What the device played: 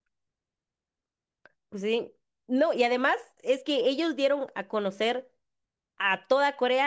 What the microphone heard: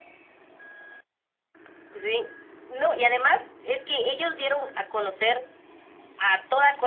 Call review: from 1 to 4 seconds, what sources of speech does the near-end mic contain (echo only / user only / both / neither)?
echo only